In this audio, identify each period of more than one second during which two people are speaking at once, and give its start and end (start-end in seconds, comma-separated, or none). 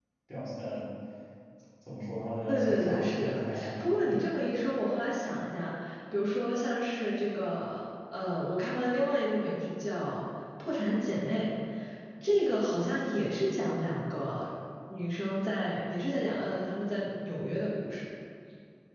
2.5-4.2